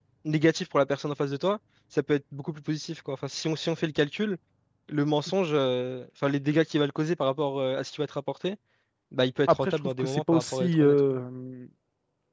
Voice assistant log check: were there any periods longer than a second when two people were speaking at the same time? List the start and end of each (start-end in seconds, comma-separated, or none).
9.5-11.2